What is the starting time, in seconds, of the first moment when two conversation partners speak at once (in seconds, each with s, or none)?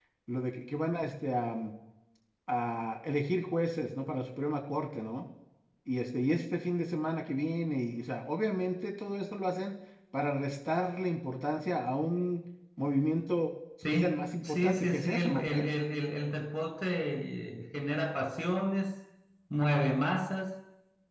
13.8 s